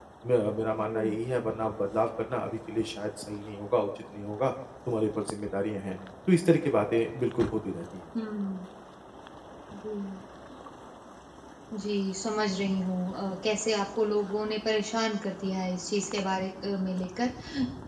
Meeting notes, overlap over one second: none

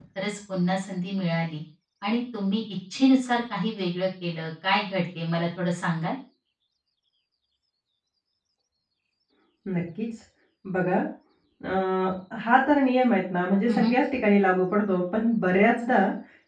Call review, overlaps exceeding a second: none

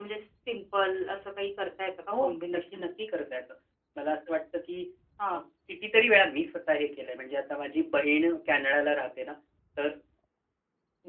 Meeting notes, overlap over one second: none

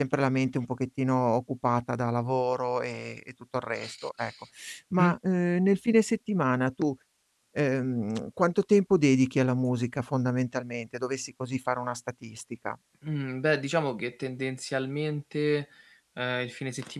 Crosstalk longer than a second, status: none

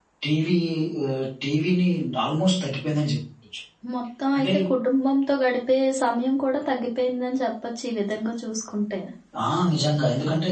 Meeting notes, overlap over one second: none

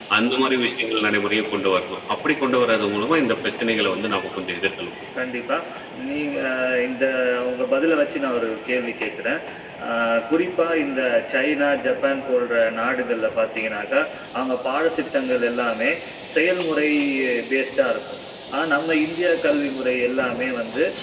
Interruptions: none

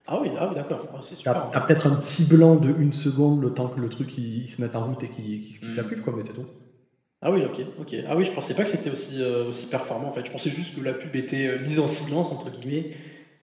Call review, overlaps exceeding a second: none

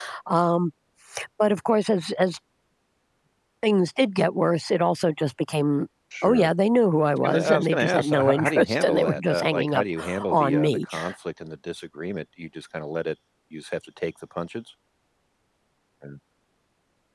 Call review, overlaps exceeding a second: present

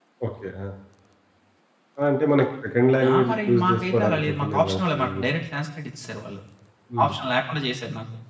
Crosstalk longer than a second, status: present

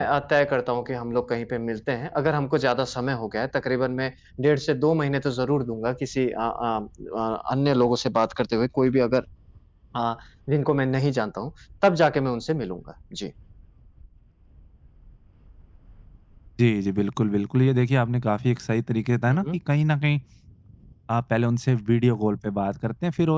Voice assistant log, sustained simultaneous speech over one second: none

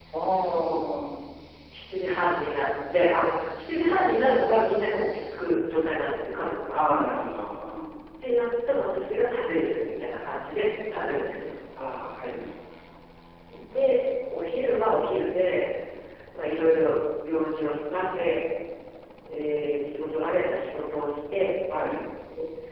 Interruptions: none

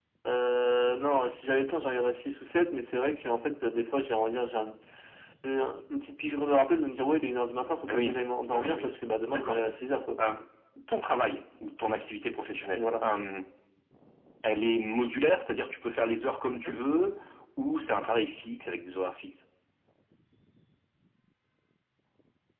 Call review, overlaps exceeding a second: none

